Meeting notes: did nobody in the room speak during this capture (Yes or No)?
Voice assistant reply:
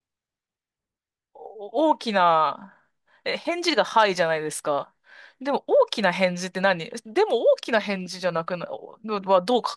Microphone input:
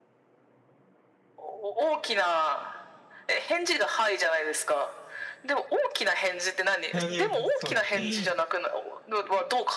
No